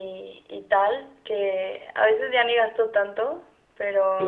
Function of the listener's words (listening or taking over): listening